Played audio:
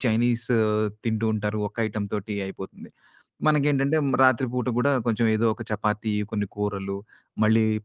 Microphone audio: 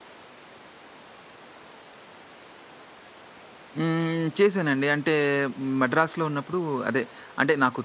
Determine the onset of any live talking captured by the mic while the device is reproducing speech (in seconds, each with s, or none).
3.8 s